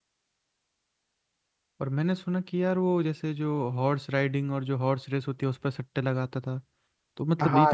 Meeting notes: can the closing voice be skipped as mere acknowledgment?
Yes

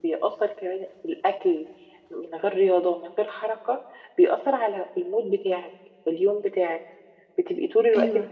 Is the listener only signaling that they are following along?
Yes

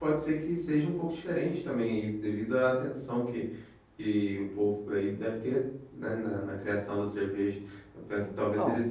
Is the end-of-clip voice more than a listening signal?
No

